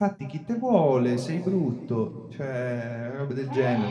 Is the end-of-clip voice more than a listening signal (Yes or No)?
No